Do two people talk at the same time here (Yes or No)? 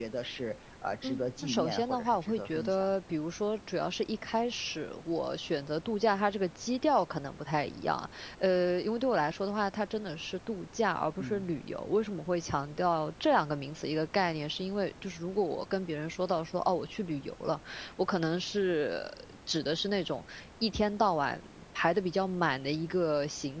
Yes